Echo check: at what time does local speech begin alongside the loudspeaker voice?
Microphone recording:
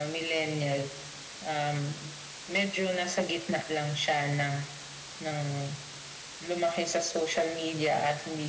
none

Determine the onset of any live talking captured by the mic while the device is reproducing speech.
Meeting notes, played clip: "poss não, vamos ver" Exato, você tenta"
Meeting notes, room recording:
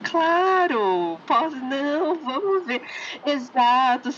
none

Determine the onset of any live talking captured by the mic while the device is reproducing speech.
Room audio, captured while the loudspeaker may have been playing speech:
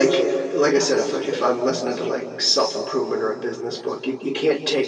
none

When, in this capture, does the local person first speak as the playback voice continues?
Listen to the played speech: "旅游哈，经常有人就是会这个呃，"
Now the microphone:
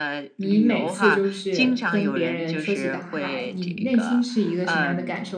0.3 s

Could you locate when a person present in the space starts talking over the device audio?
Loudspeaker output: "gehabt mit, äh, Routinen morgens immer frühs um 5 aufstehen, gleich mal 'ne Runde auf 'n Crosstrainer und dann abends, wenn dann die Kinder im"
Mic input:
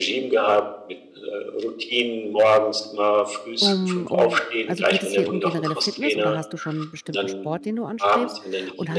3.6 s

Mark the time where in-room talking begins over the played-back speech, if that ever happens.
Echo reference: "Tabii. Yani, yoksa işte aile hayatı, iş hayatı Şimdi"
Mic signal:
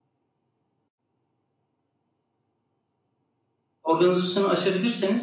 3.8 s

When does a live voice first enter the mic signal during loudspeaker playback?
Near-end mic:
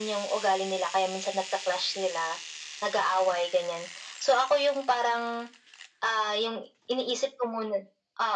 none

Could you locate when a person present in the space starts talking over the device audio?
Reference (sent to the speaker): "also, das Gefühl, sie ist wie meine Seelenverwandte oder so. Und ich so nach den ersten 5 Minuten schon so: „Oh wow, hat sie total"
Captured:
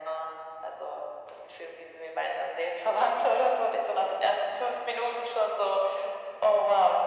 none

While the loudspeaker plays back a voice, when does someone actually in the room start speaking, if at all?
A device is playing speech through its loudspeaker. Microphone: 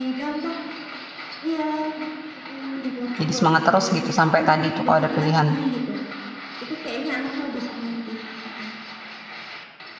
3.2 s

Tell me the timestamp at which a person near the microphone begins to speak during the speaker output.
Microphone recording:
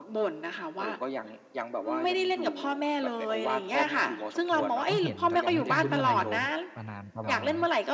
4.5 s

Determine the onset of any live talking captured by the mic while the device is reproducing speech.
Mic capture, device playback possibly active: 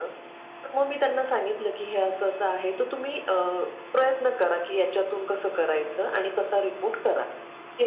none

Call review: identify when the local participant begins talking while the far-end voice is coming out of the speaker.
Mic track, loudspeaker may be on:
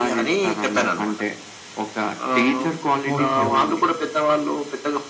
3.0 s

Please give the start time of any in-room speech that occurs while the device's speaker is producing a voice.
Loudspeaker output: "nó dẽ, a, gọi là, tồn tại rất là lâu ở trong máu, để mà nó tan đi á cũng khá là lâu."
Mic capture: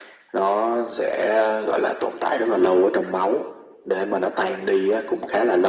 none

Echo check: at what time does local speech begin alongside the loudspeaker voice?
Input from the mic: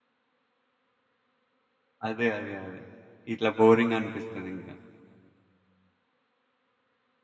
2.1 s

